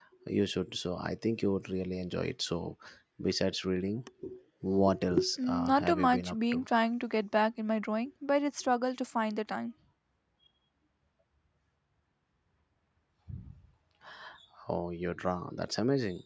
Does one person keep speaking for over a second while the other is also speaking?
Yes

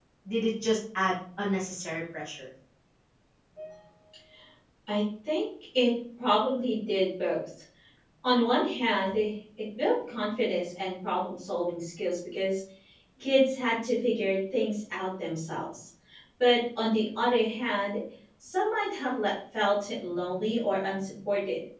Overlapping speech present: No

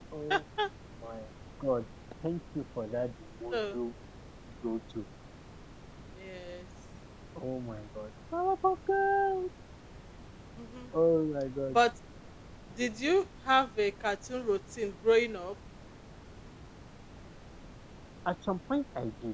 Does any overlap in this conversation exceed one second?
No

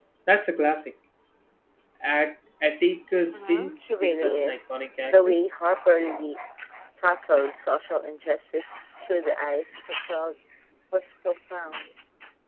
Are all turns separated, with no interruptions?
No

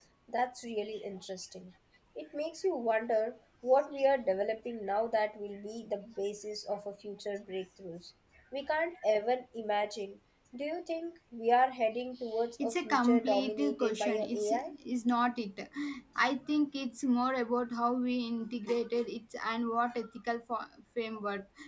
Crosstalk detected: Yes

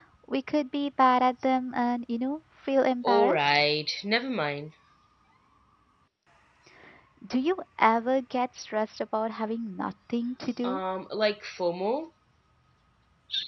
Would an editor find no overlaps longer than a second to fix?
Yes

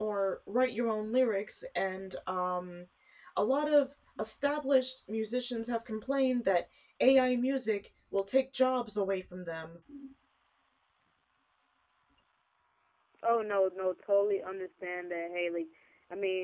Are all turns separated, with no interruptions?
Yes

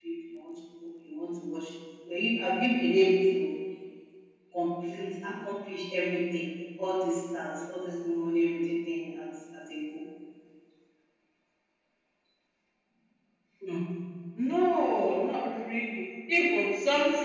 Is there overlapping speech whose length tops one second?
No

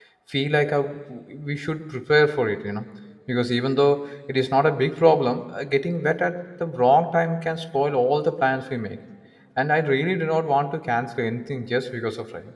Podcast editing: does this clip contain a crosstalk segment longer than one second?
No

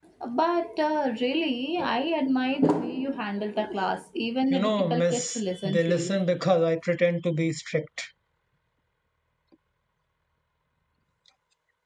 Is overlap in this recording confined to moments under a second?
No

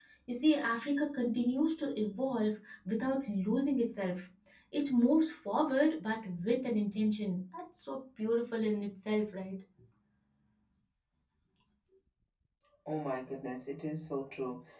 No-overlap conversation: Yes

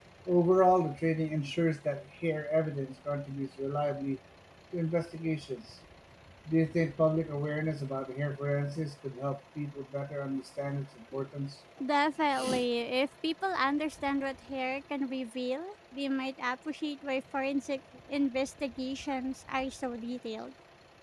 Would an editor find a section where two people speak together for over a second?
No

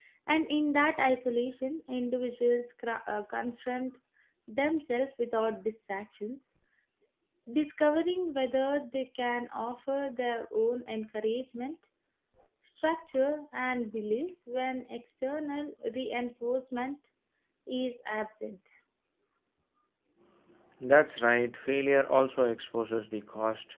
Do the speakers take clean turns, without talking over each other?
Yes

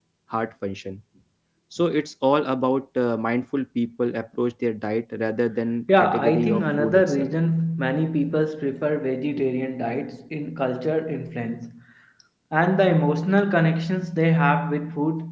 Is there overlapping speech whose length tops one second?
Yes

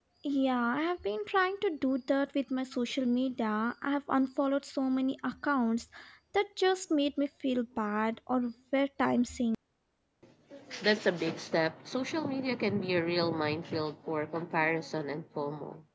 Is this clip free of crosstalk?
Yes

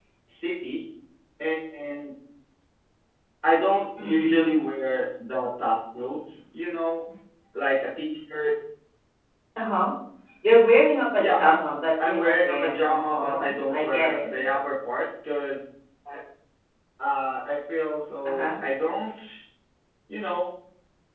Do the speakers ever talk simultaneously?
Yes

